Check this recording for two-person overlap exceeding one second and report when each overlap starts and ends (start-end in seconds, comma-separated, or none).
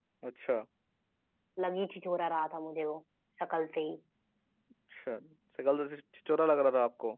none